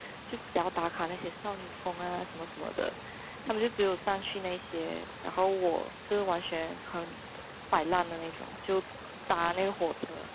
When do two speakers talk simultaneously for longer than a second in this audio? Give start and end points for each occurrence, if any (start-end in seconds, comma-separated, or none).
none